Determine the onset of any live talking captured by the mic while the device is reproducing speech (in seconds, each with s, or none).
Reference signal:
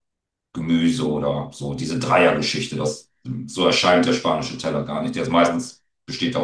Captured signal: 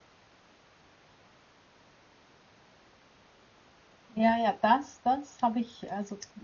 4.1 s